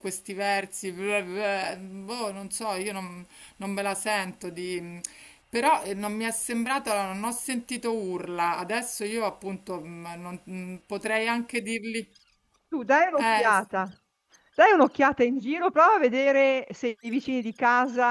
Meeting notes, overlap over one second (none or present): none